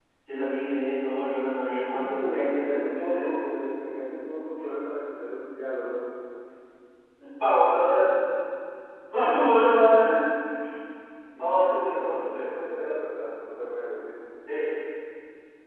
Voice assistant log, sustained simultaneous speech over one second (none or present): present